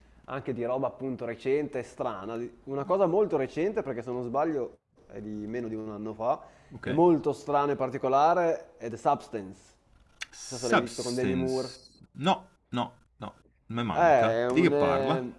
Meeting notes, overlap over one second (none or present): present